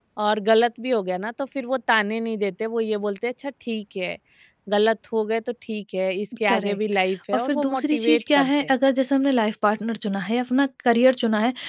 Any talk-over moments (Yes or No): Yes